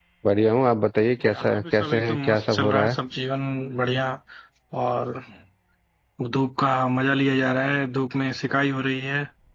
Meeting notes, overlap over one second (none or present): present